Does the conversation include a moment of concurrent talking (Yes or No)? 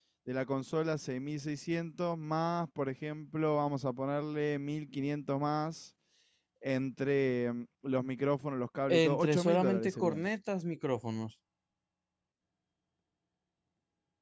Yes